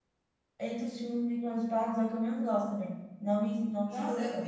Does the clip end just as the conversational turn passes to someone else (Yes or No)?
Yes